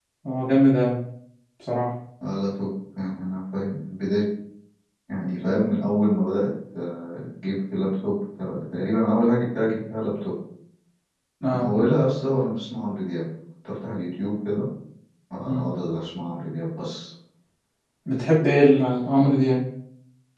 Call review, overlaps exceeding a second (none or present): none